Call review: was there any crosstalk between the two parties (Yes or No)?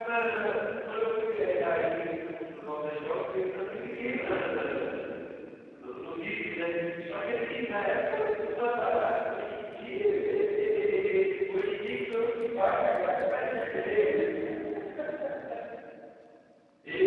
Yes